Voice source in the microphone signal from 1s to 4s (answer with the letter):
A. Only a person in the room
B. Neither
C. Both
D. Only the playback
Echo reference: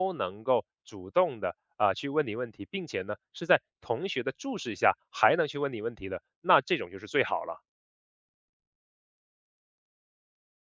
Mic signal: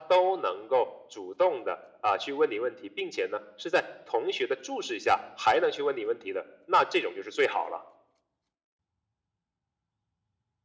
D